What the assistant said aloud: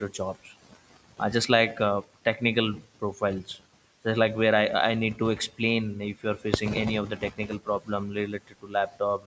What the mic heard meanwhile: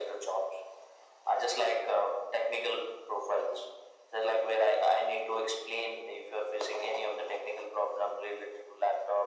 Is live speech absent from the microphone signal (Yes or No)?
Yes